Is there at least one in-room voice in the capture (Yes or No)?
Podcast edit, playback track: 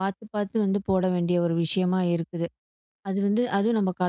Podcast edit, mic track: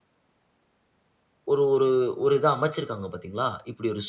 Yes